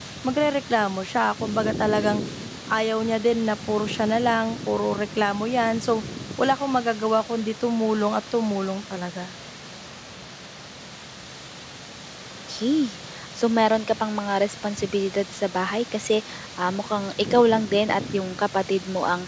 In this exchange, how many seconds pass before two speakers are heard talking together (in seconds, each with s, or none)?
none